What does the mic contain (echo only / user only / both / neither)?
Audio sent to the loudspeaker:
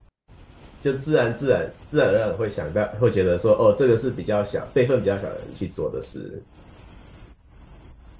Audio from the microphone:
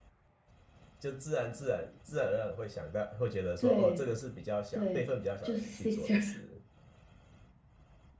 both